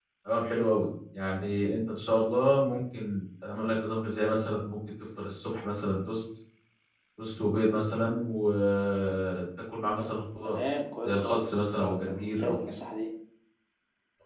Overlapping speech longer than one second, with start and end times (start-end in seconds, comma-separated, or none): 11.0-12.5